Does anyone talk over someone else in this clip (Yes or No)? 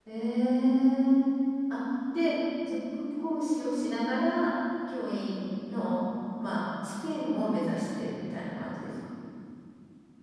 No